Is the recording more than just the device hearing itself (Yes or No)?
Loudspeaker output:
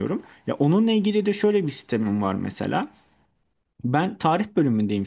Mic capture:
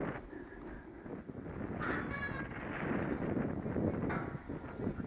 No